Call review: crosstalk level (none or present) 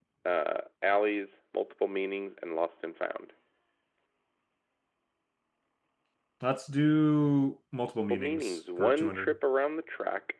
present